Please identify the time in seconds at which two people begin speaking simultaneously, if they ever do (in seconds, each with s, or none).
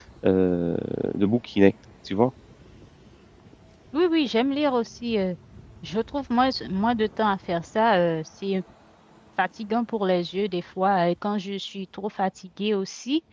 none